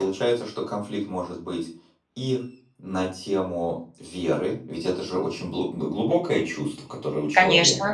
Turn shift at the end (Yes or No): No